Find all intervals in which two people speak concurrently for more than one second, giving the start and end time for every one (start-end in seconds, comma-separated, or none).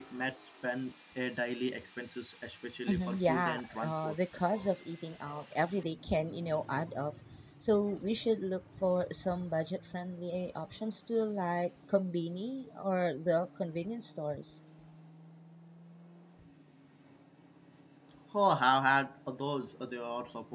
2.9-4.2